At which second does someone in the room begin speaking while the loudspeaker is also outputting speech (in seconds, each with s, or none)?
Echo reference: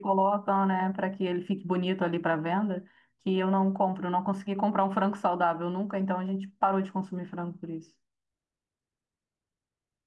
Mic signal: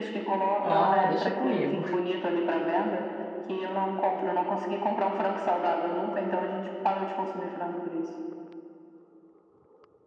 0.6 s